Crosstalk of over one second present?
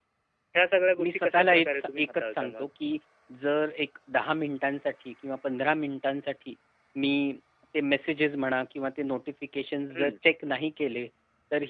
Yes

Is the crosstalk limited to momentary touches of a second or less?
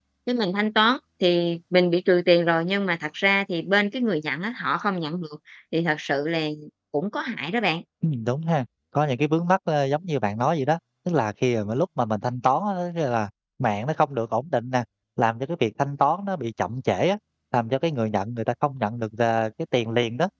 Yes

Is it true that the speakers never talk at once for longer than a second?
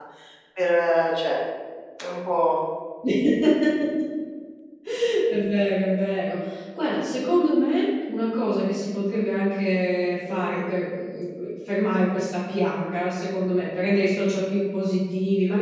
Yes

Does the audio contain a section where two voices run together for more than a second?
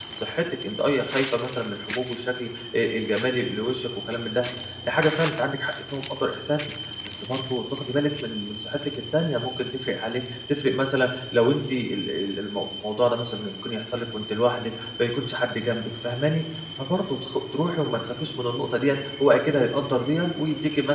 No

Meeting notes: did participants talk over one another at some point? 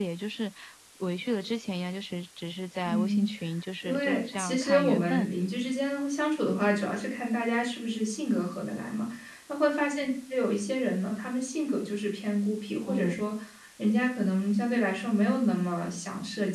Yes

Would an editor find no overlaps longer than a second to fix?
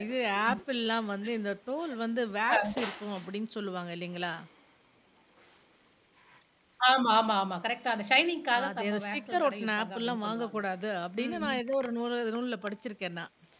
No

